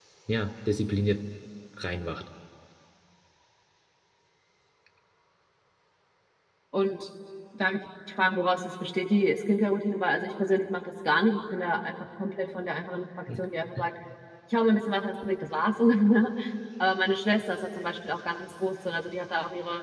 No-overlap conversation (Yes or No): Yes